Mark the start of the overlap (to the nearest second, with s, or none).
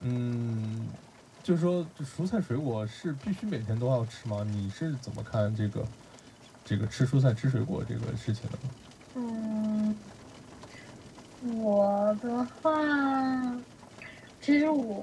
none